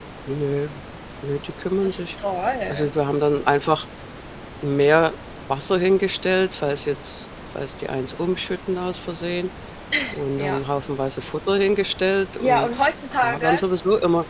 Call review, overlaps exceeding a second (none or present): none